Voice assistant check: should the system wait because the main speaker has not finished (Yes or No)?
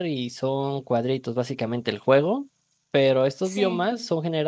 Yes